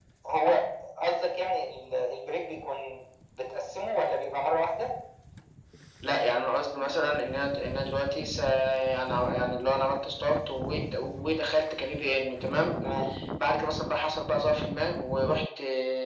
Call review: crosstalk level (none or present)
none